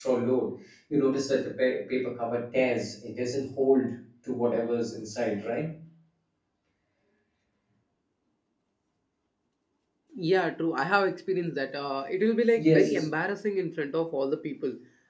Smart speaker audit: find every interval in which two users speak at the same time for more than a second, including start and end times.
none

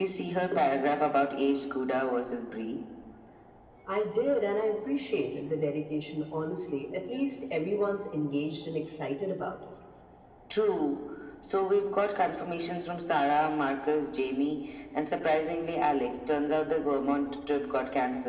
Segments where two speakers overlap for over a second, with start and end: none

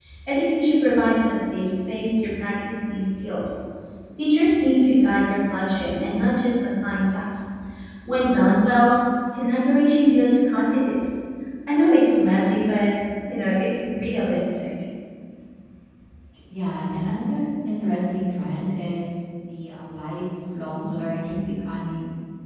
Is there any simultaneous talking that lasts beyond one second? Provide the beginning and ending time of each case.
none

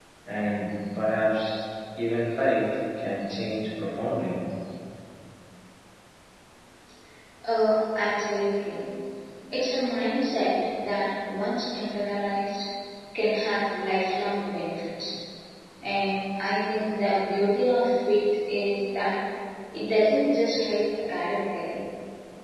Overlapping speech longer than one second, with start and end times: none

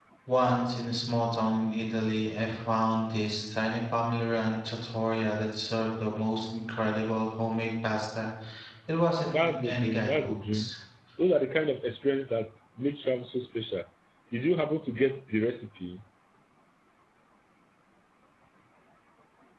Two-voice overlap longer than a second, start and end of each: 9.3-10.7

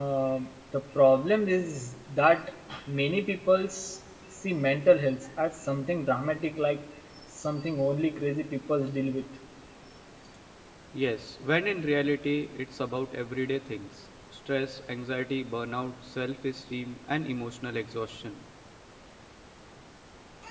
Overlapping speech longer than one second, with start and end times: none

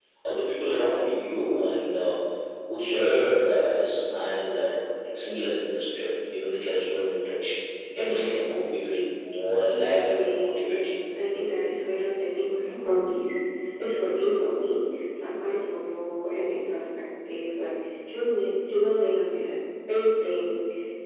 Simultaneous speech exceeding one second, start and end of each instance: 9.7-10.9

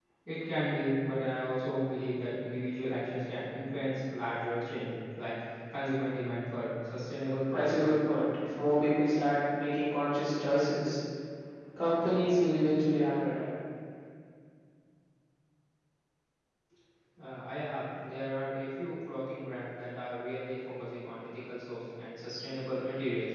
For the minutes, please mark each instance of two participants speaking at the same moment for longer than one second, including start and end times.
none

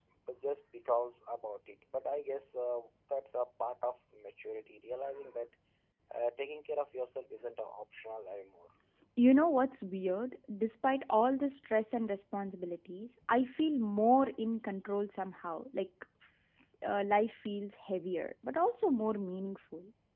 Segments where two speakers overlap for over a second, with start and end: none

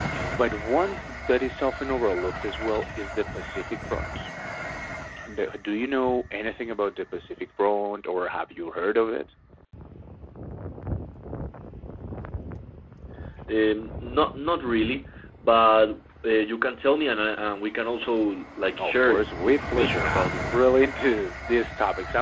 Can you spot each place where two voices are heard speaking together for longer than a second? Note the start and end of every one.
18.8-20.4

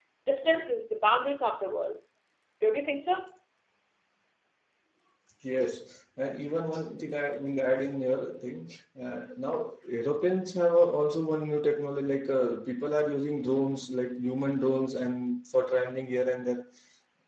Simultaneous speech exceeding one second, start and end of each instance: none

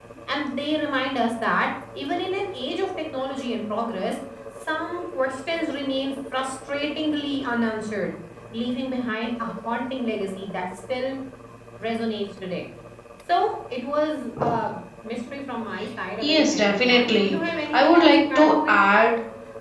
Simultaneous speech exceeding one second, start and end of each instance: 16.2-18.8

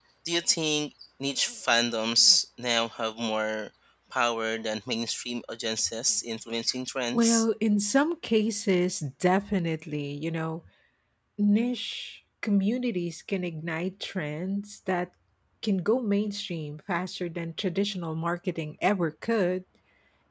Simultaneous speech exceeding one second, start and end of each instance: none

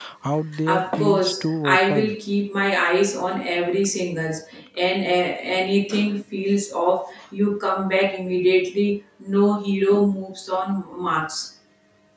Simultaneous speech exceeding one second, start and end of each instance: 0.7-2.1

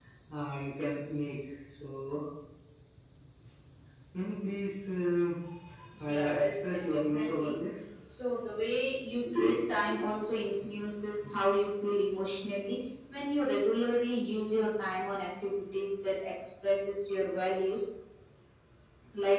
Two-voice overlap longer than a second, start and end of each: 6.1-7.6

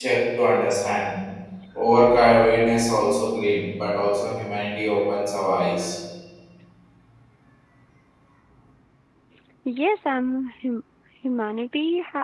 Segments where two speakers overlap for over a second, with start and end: none

